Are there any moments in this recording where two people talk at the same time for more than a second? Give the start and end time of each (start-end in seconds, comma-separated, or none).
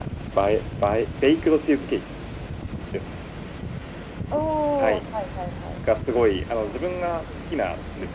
none